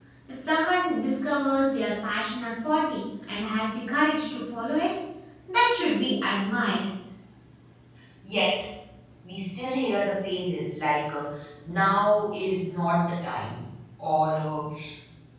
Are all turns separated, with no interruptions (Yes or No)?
Yes